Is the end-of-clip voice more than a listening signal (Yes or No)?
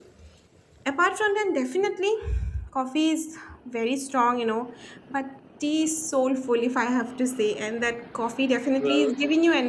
No